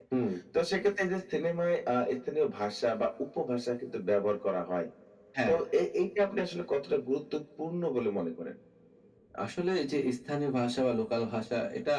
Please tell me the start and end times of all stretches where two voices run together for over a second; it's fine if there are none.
none

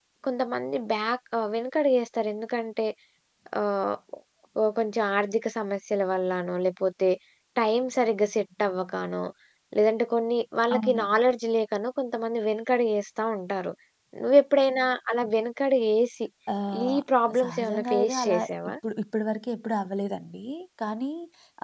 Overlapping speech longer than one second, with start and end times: 17.4-18.7

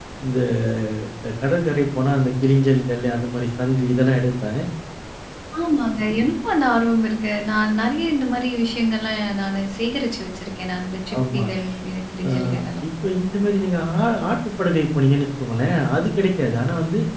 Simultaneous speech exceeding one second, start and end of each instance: none

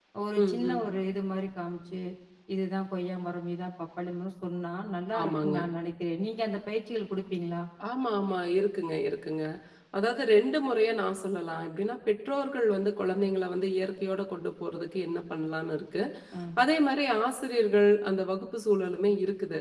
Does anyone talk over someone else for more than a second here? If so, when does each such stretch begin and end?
none

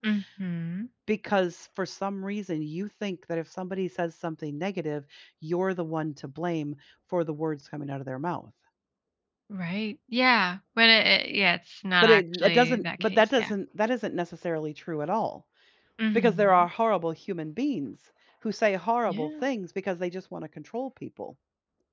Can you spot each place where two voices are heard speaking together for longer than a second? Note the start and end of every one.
12.0-13.5

